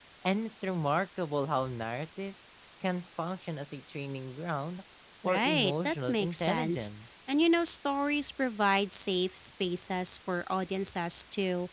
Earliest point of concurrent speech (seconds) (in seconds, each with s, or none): 5.2 s